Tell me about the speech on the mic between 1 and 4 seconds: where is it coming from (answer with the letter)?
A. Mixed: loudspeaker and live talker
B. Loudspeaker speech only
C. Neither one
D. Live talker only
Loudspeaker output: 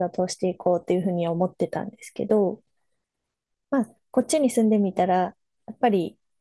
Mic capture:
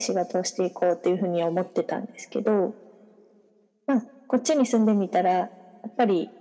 B